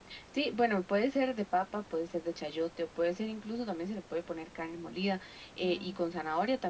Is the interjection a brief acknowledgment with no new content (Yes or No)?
Yes